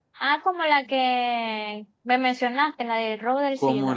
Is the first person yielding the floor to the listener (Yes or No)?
Yes